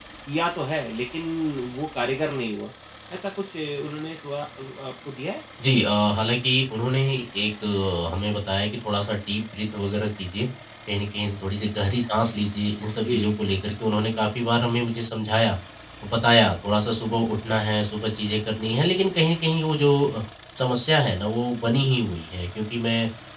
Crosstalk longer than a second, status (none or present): none